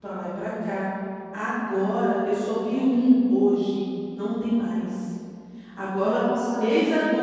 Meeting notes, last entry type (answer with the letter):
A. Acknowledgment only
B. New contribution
A